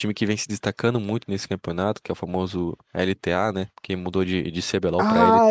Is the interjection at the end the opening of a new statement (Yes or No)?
Yes